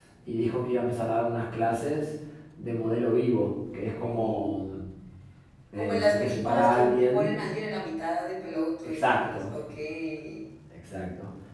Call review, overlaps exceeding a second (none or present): present